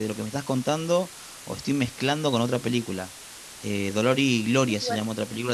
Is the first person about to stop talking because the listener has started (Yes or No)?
No